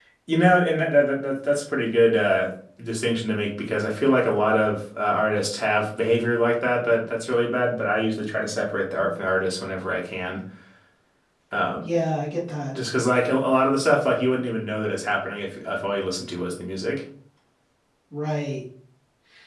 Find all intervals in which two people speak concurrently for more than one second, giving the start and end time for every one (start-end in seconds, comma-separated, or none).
none